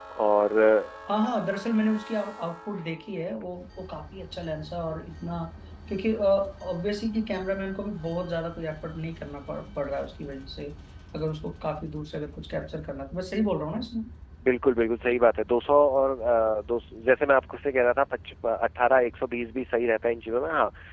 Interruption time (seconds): none

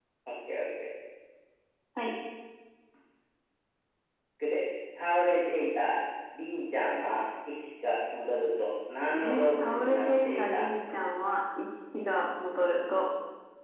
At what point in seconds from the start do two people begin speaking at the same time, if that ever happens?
9 s

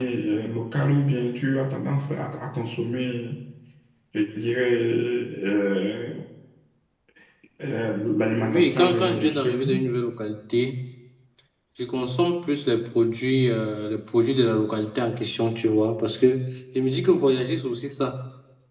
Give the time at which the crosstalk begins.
8 s

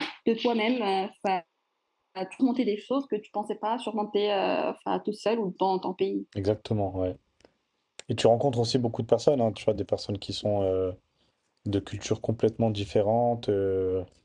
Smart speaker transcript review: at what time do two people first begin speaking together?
none

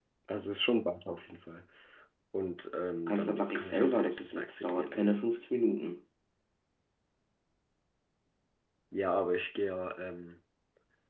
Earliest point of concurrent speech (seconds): 3 s

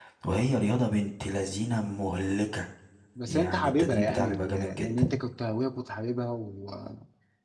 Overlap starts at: 3 s

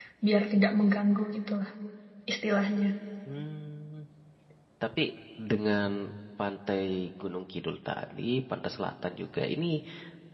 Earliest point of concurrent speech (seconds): none

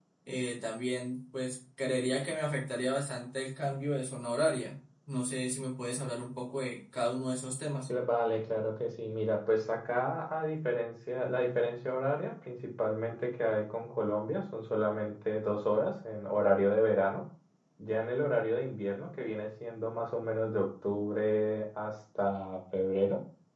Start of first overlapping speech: none

